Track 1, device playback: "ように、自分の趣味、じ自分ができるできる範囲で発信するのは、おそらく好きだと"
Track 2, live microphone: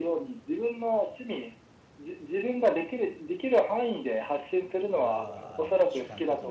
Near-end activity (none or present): present